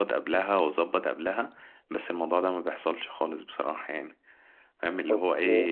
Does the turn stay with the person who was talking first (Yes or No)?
Yes